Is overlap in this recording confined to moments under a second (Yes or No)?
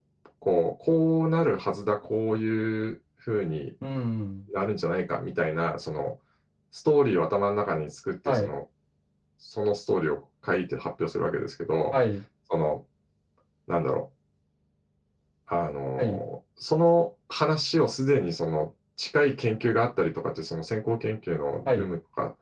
Yes